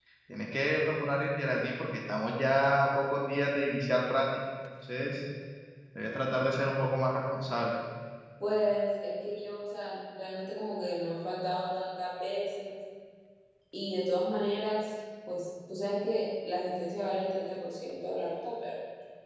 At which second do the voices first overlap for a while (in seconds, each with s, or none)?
none